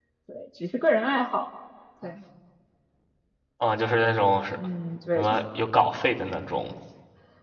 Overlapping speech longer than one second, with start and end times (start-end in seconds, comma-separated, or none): none